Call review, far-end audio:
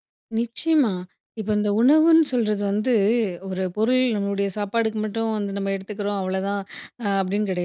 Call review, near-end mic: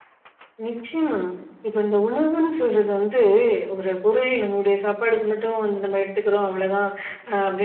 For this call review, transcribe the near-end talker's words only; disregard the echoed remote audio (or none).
none